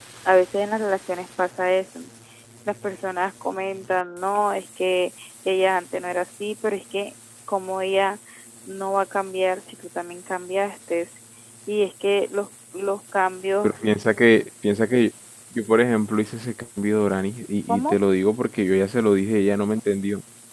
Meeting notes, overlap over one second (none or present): none